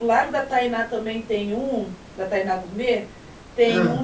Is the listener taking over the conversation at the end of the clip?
No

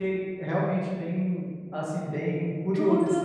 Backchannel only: No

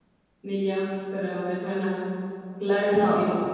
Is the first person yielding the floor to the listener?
Yes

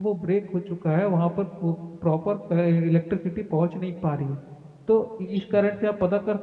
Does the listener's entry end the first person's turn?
No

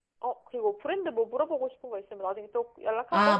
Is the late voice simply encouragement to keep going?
No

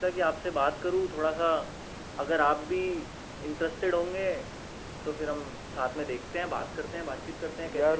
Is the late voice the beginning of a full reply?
Yes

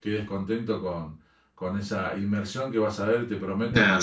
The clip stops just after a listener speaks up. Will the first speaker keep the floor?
No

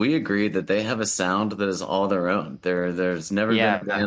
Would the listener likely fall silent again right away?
Yes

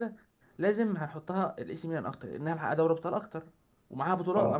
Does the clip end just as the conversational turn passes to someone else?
No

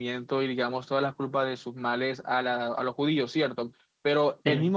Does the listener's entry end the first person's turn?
No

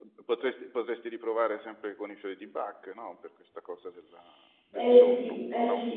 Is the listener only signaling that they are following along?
No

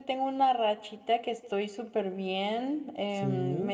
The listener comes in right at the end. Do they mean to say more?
No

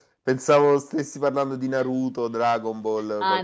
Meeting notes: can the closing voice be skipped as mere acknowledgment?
No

